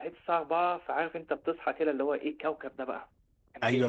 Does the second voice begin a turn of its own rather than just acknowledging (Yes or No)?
Yes